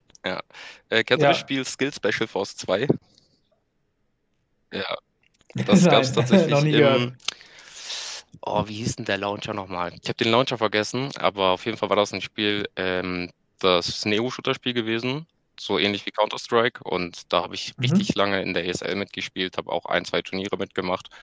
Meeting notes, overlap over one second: present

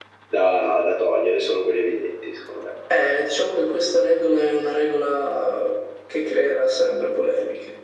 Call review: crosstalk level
none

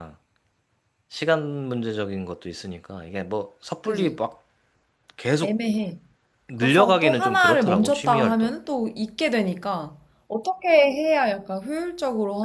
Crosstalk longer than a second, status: present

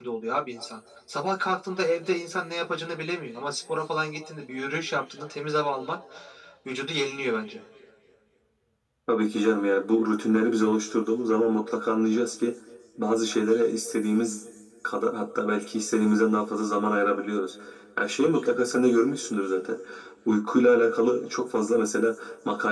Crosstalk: none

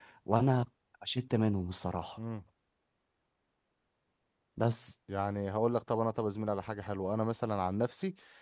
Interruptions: none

